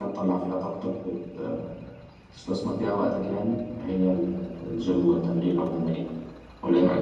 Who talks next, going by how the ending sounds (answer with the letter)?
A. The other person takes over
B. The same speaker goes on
A